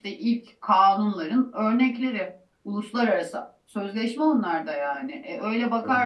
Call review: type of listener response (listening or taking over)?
listening